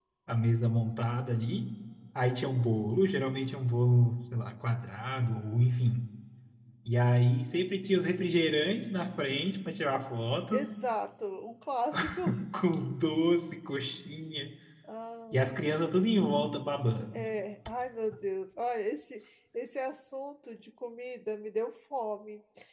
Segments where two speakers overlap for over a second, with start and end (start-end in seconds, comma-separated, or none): none